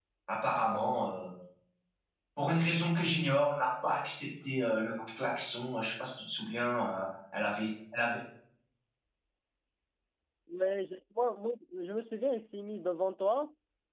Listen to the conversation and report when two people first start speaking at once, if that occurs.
none

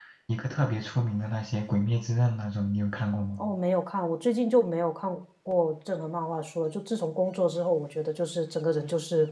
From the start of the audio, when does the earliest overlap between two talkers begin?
none

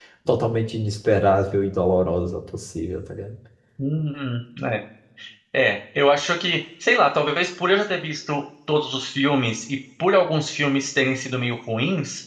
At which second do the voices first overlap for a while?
none

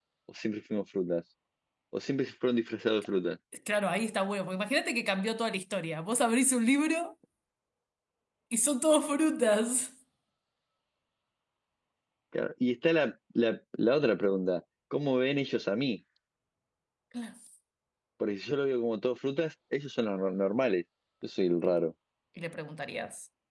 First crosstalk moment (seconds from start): none

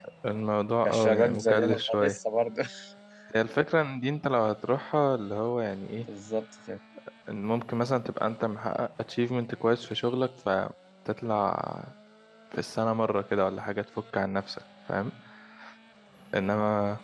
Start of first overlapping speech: 0.8 s

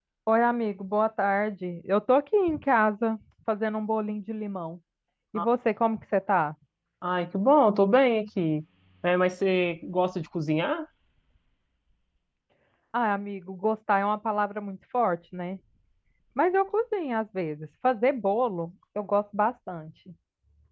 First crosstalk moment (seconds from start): none

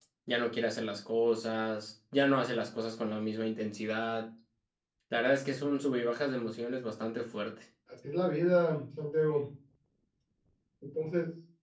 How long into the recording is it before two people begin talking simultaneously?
none

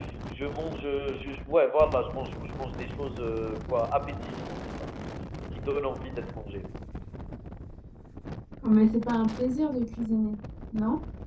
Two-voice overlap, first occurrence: none

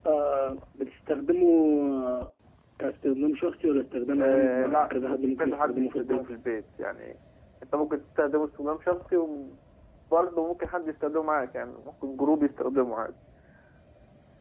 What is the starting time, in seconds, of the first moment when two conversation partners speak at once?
4.1 s

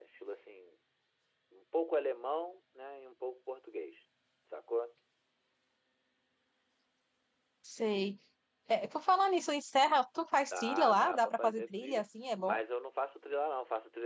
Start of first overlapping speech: 10.5 s

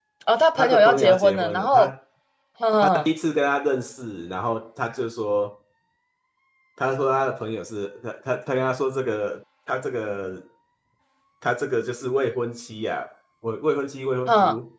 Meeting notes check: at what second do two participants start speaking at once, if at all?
0.6 s

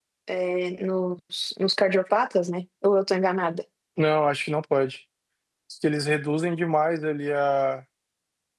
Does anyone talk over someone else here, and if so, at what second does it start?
none

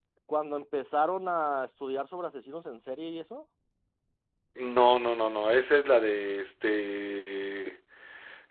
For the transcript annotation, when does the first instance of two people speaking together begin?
none

